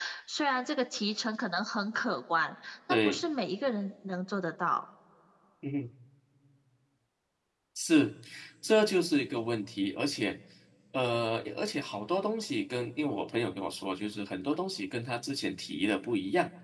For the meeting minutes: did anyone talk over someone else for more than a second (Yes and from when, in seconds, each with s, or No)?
No